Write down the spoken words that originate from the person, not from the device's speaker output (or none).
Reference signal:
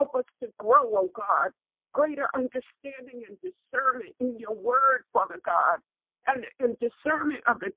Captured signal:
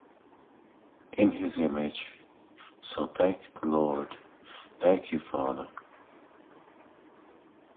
in His image. So thank the Lord. Thank you, Father,